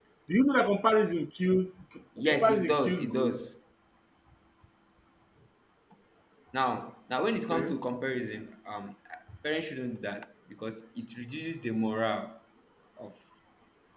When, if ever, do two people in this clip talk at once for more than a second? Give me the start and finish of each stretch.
2.2-3.4

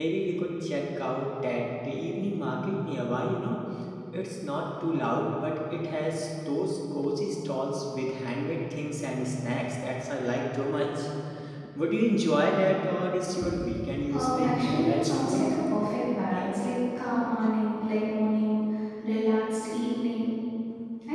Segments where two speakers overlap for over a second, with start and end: 14.1-15.4

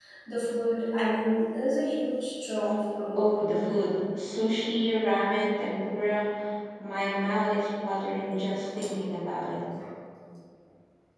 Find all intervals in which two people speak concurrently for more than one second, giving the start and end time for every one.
none

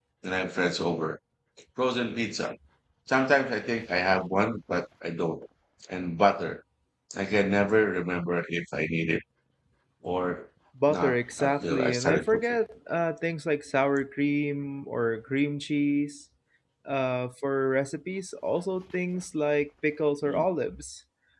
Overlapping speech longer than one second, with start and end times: 10.9-12.4

